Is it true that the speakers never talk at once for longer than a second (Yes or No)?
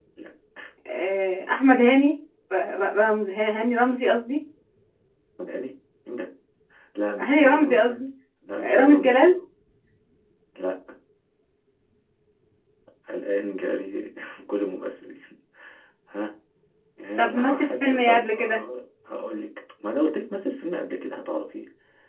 No